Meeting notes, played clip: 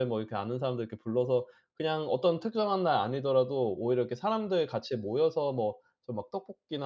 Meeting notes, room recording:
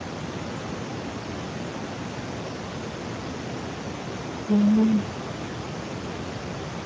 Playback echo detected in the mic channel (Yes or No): No